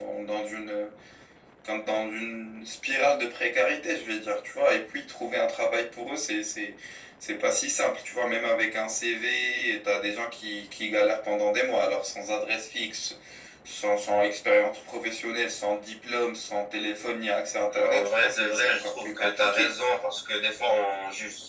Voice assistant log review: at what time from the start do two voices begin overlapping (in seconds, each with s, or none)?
17.7 s